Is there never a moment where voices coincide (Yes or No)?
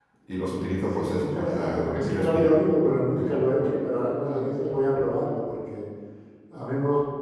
No